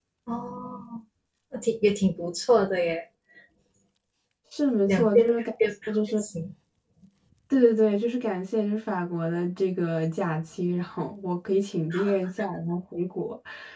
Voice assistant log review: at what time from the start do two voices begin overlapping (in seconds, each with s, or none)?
4.9 s